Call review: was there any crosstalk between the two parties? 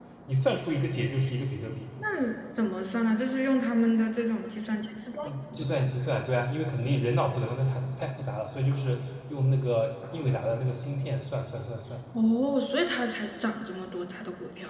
No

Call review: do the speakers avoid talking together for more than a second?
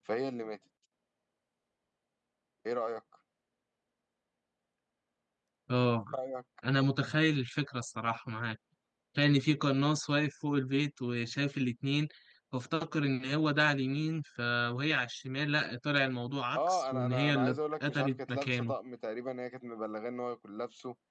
No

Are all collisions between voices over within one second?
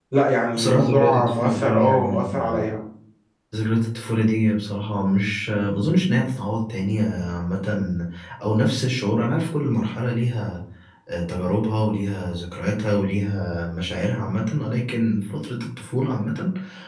No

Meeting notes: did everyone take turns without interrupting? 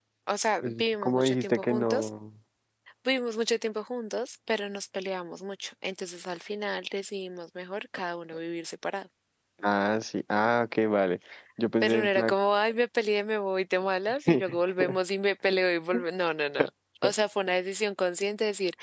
No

